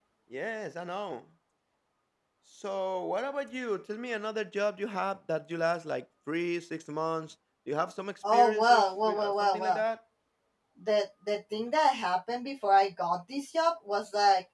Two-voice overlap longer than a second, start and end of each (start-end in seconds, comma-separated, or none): 8.3-9.8